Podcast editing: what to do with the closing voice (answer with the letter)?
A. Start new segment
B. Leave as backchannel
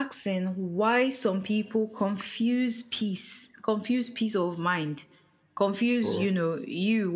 B